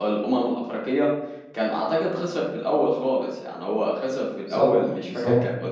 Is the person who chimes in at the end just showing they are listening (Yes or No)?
Yes